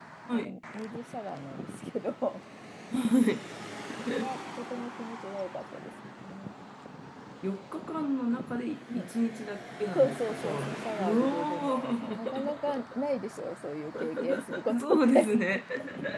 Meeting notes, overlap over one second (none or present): present